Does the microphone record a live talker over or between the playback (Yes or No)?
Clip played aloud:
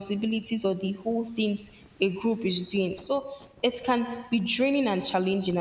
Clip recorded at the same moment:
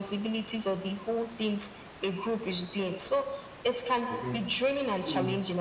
Yes